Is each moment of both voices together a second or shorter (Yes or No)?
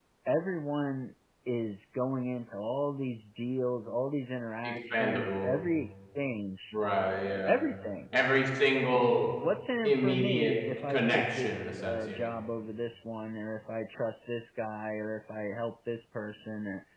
No